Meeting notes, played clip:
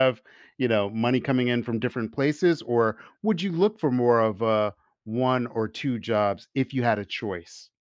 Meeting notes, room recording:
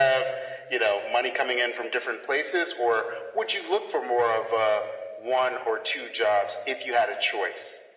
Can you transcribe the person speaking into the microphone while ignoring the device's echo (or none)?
none